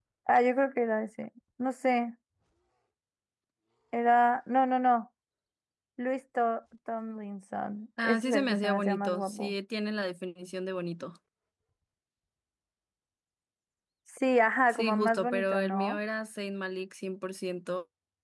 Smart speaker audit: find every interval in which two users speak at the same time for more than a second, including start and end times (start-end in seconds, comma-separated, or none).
8.0-9.5, 14.7-16.0